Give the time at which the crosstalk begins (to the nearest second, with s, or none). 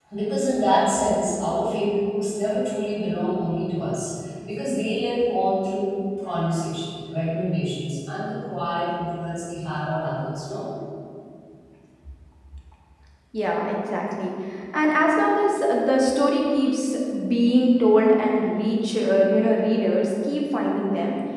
none